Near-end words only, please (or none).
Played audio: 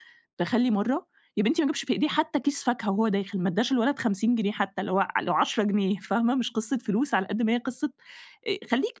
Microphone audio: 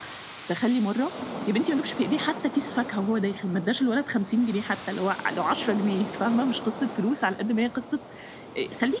none